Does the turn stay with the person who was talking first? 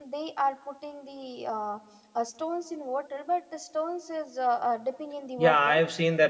No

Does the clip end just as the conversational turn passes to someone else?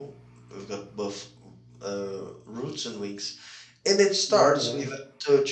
No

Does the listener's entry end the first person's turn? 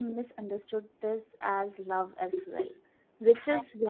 No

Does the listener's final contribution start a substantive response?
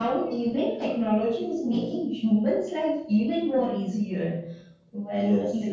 No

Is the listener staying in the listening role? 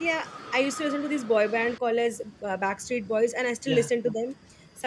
Yes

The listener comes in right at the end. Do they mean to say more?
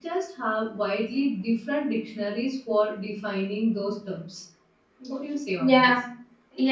Yes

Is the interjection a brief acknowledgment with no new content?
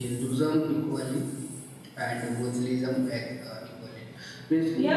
No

